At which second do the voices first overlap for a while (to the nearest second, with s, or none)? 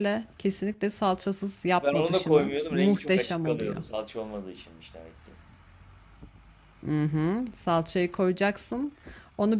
2 s